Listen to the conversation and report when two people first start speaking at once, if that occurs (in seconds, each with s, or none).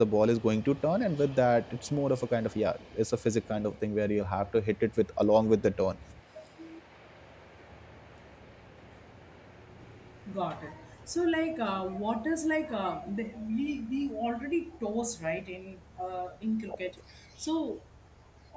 none